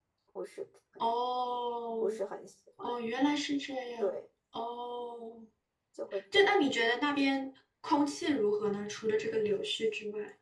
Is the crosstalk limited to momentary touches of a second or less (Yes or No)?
Yes